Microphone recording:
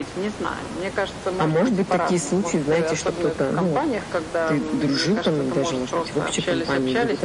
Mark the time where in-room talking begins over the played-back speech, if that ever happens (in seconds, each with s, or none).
none